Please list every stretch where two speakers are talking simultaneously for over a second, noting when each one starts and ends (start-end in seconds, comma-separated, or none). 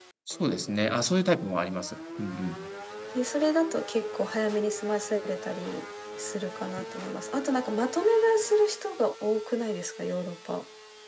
none